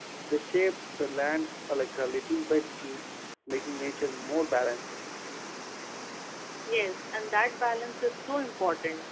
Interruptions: none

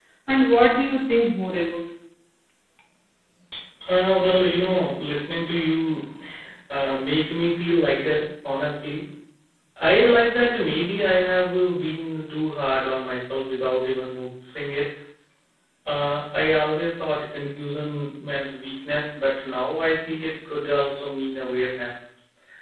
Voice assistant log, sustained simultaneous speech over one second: none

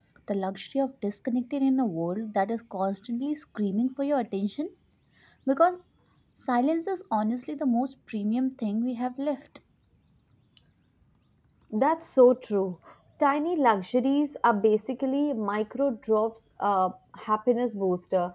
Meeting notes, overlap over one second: none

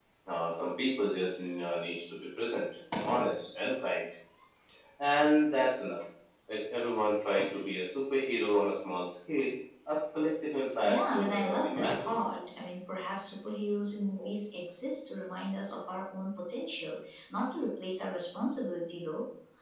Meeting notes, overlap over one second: present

